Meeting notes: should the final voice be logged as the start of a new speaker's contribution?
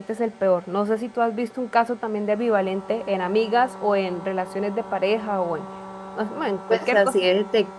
Yes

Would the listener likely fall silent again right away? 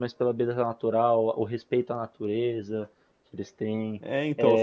No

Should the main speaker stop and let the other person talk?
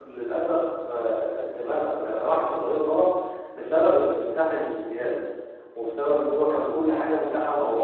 No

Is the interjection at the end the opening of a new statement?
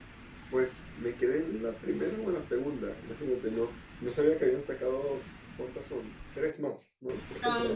Yes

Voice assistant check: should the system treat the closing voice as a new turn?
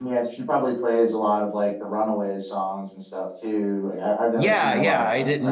Yes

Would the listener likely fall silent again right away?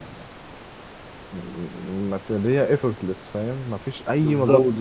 Yes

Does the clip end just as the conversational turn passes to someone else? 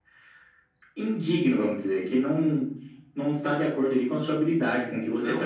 Yes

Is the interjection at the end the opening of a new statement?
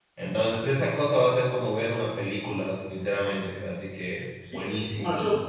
Yes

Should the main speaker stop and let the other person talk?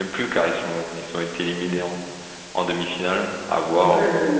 Yes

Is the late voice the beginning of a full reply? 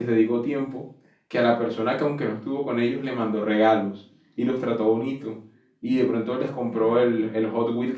No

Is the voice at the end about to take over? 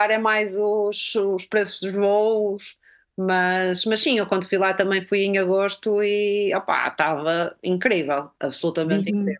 Yes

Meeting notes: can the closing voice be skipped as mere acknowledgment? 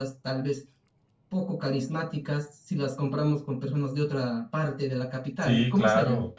No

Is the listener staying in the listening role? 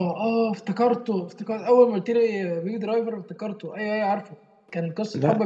Yes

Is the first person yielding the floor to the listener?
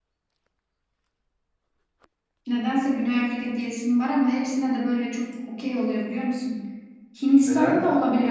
Yes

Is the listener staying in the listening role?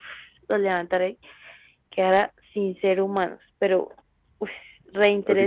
No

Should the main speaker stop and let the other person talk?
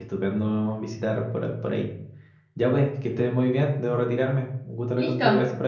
Yes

